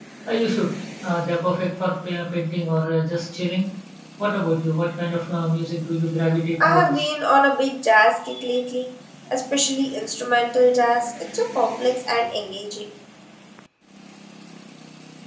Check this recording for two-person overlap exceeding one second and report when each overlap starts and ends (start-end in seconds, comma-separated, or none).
none